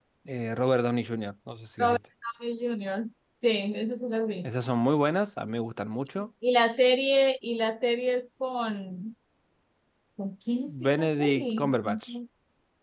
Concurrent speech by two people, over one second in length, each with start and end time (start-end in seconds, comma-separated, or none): 10.9-12.1